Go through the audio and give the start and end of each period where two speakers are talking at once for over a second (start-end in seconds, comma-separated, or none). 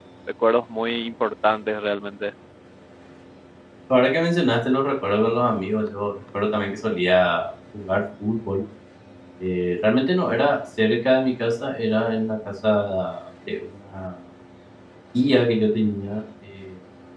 none